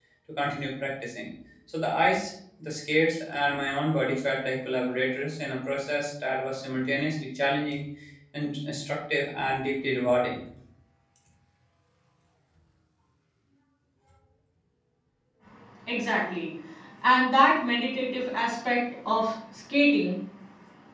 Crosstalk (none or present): none